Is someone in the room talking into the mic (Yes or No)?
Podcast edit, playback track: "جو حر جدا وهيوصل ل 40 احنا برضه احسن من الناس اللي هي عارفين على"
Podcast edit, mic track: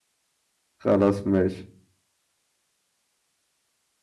Yes